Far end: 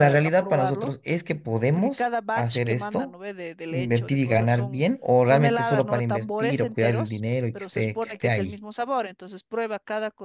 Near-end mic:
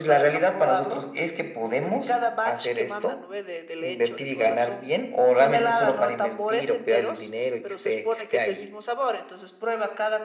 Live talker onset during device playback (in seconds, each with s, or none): none